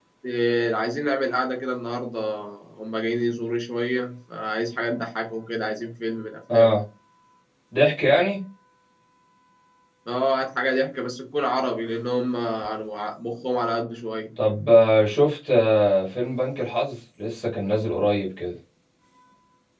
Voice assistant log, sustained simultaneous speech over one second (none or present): none